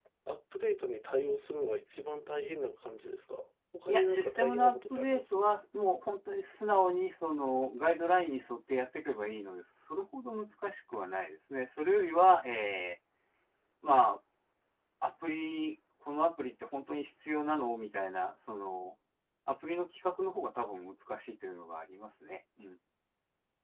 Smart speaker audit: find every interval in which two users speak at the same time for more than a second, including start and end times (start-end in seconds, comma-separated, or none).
3.9-5.4